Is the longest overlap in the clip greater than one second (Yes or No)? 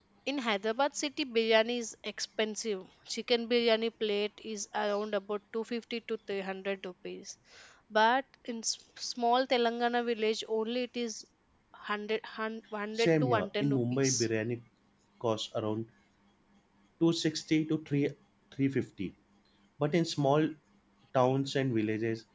Yes